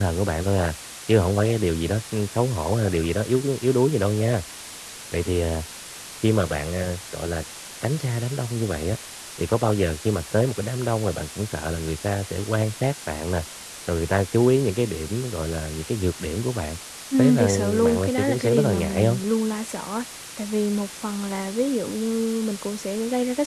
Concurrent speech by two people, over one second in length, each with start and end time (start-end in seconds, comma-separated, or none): 17.2-19.2